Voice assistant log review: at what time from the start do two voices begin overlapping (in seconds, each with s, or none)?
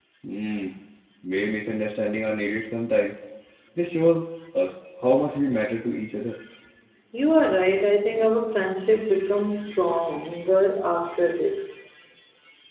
none